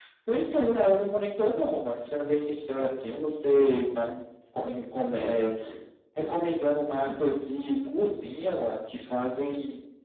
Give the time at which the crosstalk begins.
none

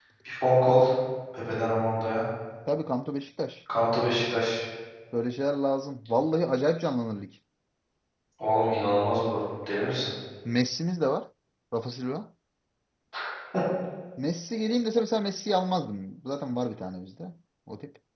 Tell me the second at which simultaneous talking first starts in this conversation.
none

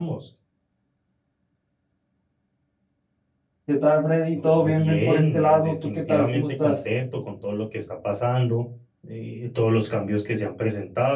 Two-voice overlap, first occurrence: 4.3 s

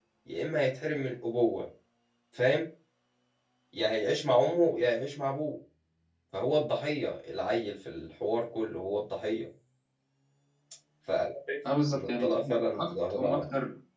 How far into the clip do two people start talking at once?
11.9 s

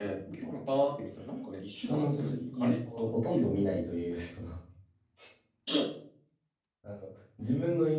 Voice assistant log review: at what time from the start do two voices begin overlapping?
1.8 s

